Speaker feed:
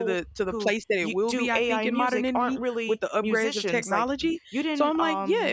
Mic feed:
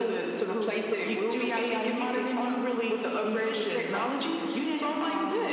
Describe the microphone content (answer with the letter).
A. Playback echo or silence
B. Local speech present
A